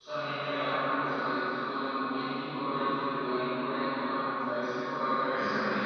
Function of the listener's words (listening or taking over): listening